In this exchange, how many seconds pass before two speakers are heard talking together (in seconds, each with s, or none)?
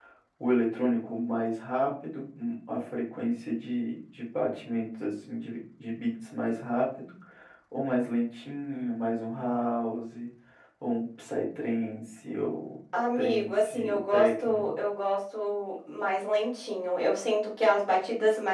12.9 s